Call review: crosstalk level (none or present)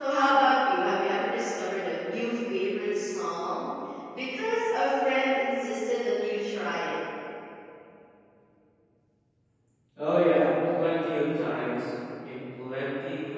none